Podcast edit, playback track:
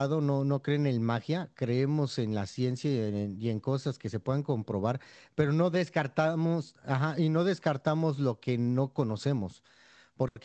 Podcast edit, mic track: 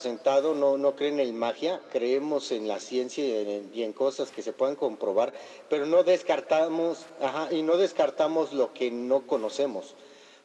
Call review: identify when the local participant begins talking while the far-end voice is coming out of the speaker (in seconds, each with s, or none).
none